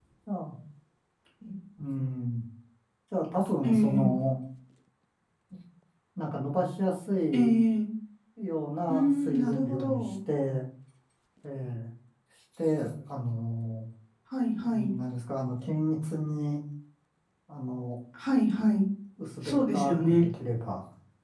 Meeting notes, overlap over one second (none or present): present